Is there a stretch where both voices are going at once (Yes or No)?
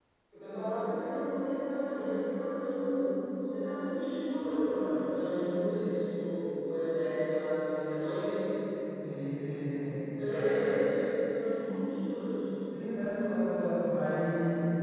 No